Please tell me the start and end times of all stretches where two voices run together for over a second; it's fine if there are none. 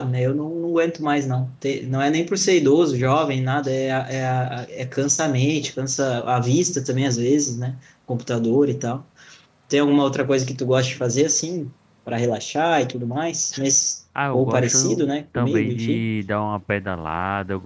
14.3-16.0

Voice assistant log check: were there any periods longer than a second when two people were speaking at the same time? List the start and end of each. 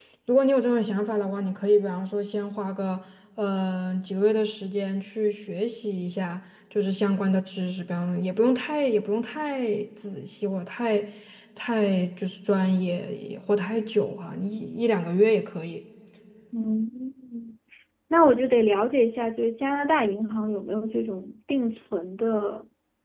none

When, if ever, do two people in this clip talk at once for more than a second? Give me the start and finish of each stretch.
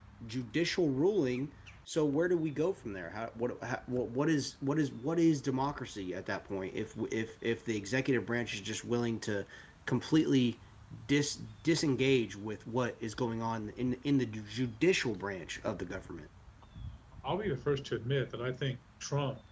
none

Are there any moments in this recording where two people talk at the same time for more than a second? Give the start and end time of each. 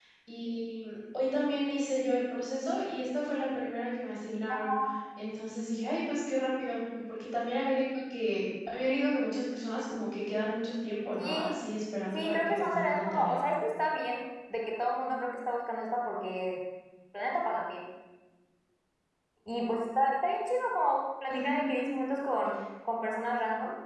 12.1-13.4

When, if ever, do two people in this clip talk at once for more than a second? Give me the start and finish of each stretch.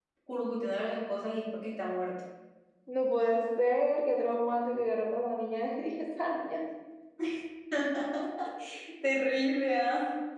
none

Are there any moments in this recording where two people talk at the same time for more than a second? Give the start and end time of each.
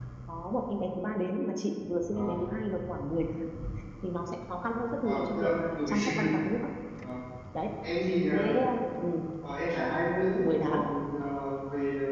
5.0-6.3

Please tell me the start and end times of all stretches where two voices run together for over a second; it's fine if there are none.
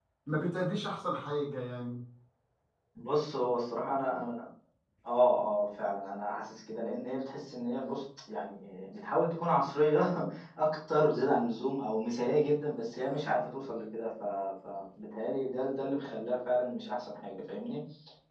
none

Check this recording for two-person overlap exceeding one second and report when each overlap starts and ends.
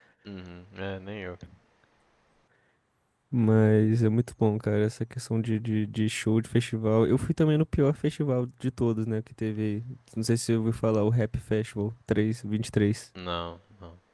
none

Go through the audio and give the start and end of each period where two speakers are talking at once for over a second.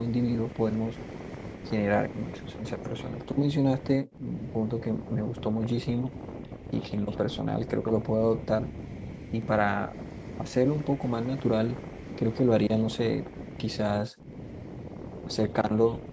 none

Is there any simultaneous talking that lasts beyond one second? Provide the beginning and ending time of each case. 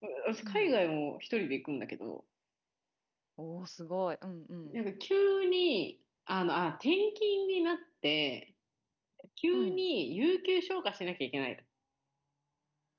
none

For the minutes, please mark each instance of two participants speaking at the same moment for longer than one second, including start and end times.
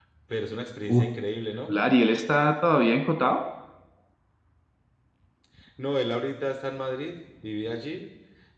none

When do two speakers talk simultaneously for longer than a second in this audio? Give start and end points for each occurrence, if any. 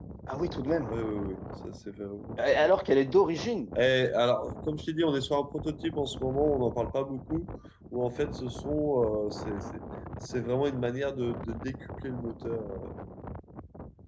none

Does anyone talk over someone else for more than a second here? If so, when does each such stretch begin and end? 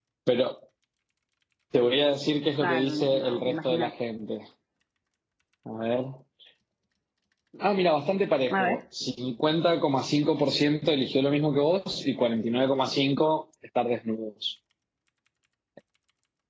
2.6-3.9

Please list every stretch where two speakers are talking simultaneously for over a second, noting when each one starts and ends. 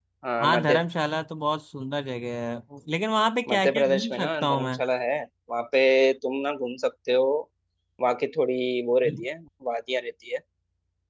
3.5-4.8

